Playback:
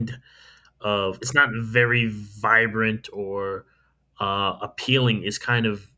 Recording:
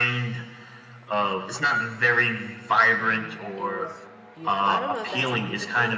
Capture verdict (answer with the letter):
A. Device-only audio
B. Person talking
B